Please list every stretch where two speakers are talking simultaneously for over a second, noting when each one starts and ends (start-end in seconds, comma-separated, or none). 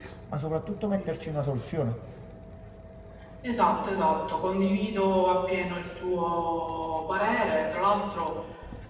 none